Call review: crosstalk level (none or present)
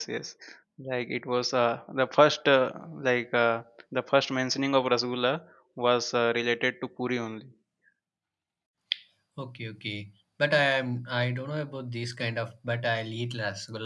none